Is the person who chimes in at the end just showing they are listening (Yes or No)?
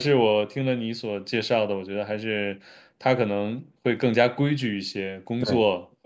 Yes